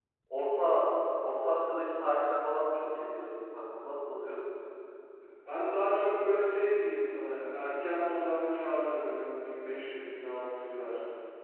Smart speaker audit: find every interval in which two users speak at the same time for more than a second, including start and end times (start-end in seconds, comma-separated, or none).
none